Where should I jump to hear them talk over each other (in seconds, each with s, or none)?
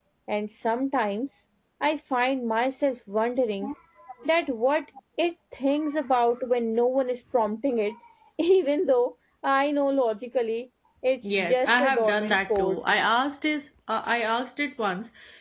11.2 s